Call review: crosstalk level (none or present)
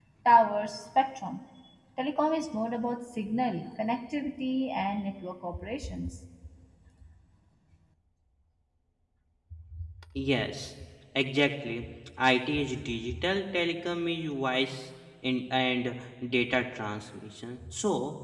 none